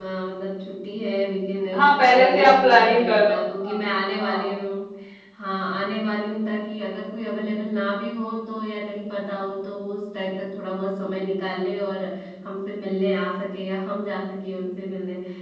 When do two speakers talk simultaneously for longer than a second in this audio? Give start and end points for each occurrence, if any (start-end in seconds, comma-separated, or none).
1.7-3.8